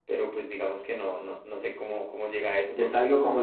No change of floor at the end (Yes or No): No